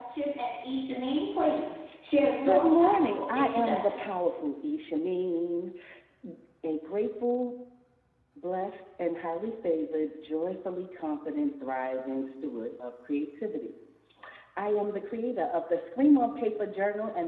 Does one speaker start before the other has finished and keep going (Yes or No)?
Yes